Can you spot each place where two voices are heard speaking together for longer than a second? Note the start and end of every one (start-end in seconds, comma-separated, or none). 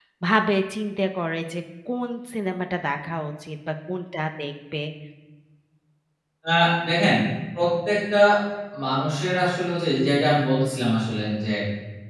none